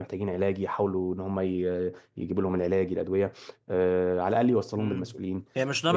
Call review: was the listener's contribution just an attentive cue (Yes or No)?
No